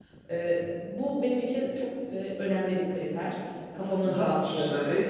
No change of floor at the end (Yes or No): No